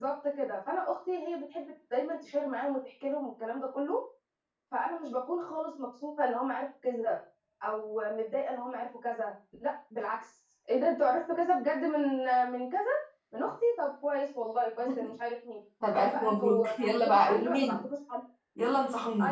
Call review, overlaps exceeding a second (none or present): present